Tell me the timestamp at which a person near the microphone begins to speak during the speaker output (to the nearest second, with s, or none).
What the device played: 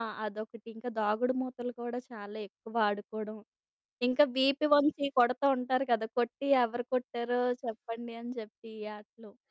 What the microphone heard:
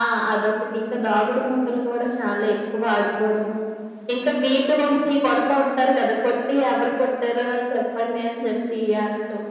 none